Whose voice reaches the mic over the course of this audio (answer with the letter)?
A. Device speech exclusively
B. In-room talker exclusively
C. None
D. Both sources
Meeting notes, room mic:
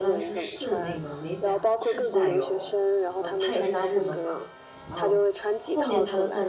D